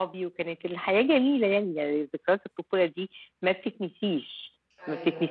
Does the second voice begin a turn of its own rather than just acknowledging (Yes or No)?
No